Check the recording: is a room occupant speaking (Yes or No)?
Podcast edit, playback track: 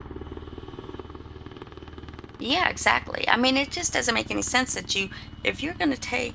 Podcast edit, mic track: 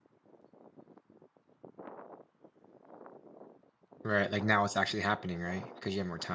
Yes